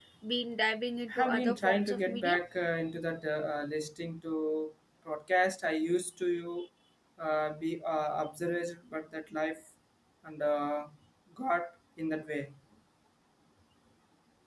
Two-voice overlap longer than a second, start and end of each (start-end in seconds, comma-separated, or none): 1.1-2.4